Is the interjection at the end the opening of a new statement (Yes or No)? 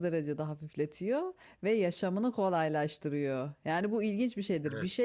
No